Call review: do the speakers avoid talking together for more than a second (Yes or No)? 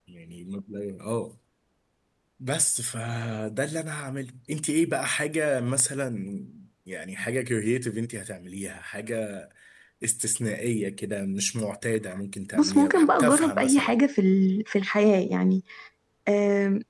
No